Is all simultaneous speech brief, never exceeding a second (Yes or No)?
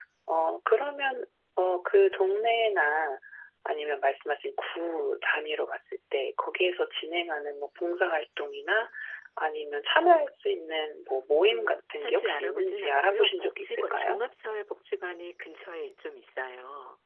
No